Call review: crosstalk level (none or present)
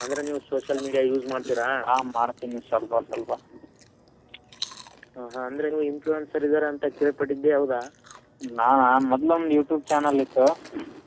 none